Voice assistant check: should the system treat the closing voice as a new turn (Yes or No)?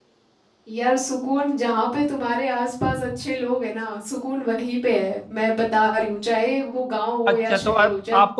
Yes